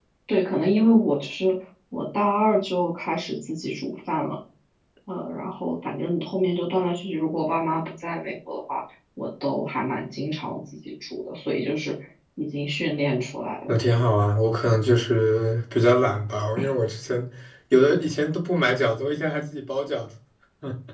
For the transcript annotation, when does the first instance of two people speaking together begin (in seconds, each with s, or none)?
none